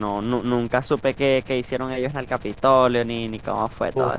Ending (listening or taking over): taking over